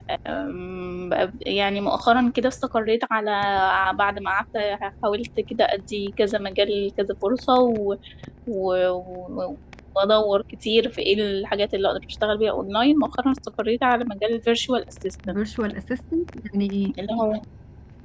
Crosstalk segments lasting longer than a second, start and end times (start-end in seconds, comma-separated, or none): none